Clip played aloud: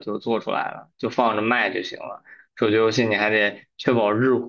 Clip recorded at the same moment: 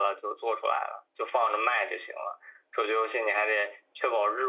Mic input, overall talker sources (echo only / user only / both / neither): echo only